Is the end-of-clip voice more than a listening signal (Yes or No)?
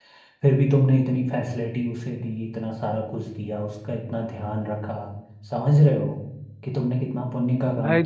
Yes